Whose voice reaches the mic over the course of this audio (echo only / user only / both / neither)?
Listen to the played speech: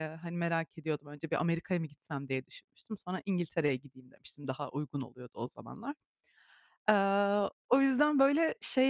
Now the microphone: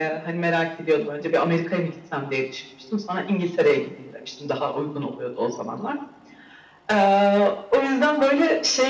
both